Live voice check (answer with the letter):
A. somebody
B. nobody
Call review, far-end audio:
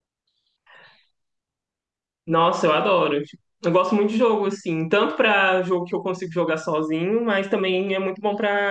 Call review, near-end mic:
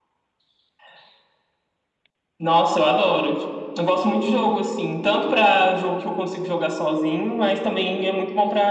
B